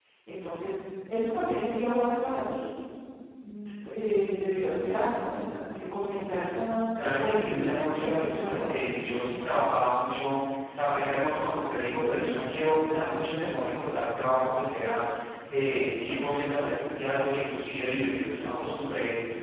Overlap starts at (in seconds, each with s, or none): 7.2 s